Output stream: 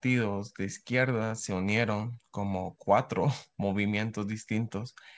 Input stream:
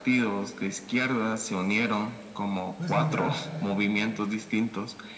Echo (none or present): present